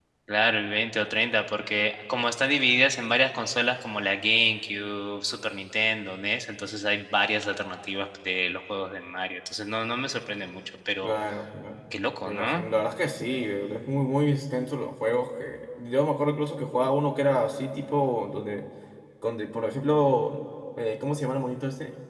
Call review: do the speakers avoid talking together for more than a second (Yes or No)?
Yes